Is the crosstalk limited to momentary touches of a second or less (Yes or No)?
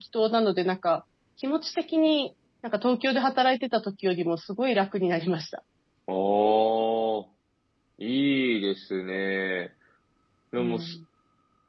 Yes